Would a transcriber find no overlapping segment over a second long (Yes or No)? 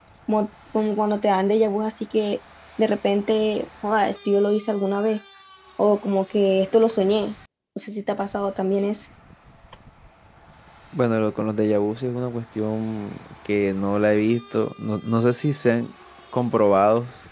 Yes